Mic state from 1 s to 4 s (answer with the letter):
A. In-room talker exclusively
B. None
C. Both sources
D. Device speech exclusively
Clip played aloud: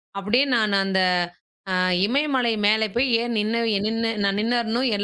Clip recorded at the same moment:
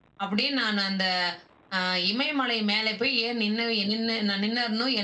D